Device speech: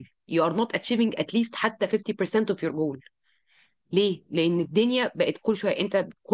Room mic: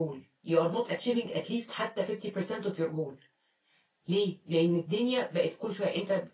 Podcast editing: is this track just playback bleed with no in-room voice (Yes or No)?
Yes